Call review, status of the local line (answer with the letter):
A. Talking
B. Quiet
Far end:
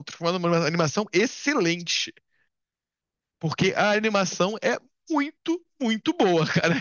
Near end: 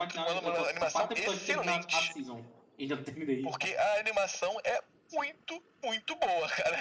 A